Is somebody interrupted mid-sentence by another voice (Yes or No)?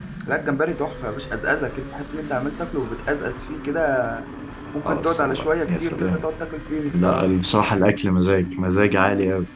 Yes